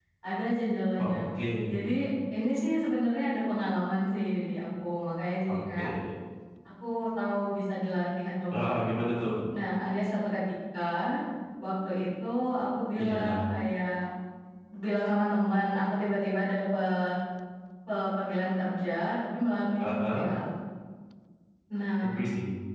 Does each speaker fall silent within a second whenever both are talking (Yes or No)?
Yes